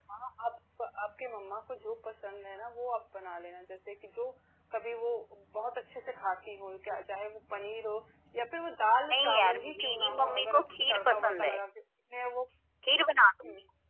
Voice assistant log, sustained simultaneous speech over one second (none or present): present